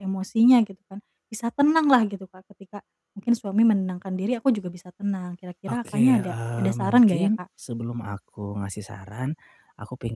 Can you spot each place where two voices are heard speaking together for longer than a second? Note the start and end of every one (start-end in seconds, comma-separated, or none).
5.7-7.3